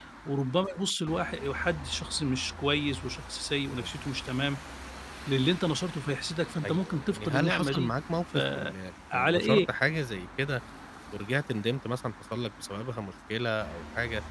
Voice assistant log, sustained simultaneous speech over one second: present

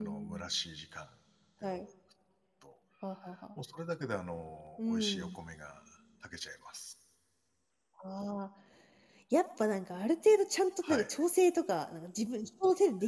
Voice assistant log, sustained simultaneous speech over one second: none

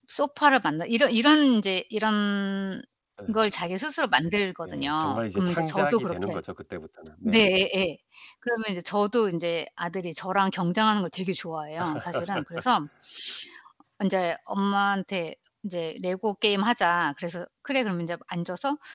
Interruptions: present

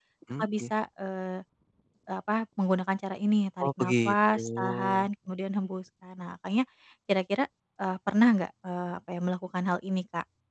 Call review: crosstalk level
present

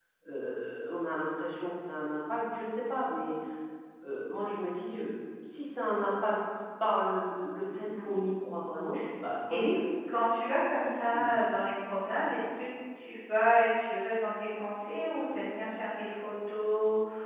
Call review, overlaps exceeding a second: none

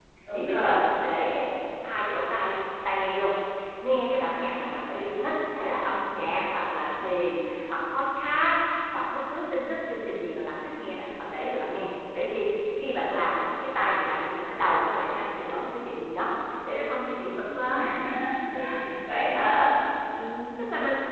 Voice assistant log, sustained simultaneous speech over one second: none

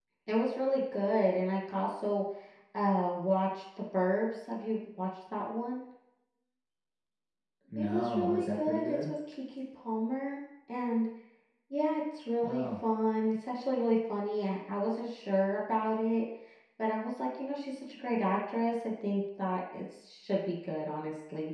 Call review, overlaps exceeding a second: present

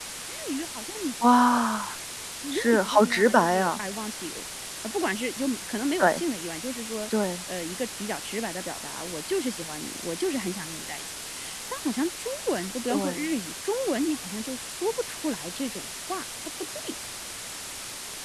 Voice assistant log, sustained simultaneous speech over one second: present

